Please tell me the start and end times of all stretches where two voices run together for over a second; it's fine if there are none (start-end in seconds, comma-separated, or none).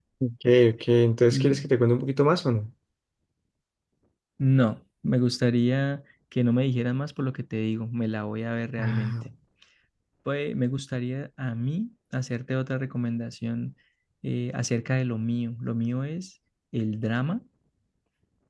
none